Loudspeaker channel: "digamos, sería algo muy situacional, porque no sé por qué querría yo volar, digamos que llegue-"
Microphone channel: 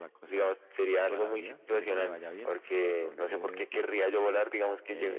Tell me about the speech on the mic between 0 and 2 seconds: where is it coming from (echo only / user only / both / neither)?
both